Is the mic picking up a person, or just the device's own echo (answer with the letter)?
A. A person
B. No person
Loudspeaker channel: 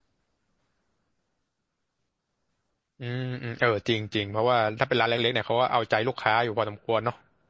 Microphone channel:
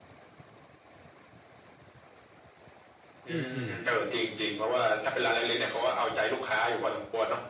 A